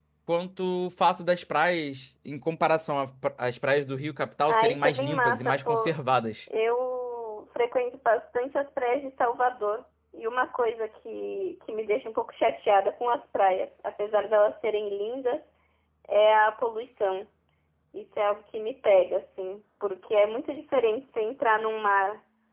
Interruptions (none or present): present